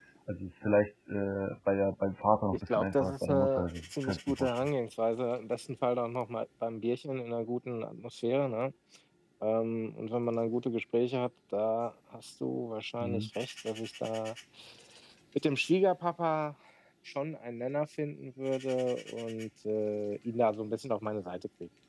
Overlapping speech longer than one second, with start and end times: 2.5-4.7

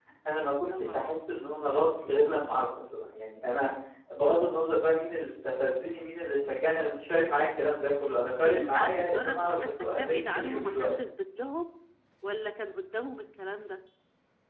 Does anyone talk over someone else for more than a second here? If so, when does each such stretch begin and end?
8.4-10.9

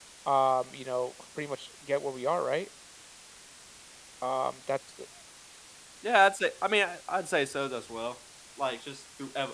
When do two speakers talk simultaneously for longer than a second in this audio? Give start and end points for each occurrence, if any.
none

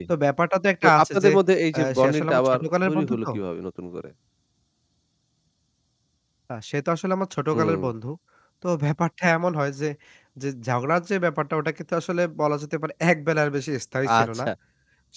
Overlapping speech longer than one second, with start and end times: 1.7-3.3

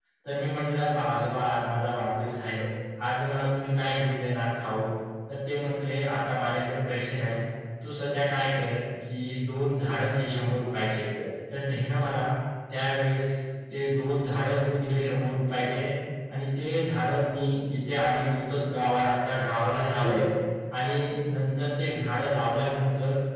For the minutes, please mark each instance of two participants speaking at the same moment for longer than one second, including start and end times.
none

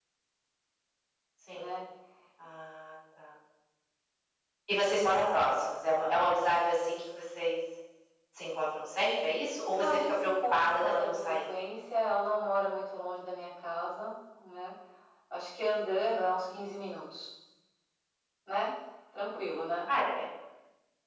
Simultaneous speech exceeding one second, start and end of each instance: 9.8-11.4

